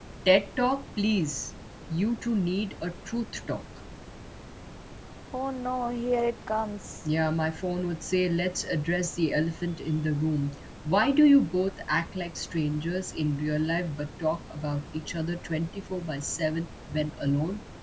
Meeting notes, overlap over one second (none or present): none